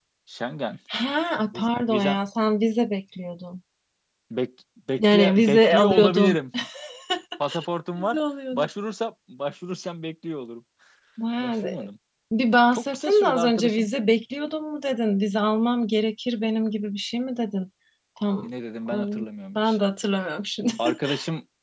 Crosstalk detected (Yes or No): Yes